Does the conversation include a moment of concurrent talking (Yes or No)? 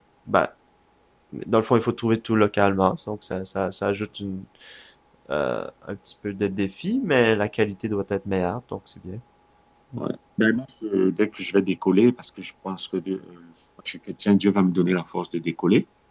No